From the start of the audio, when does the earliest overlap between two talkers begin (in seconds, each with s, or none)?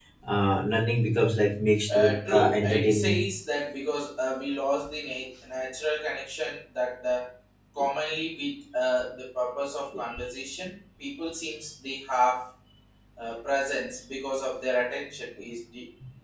1.9 s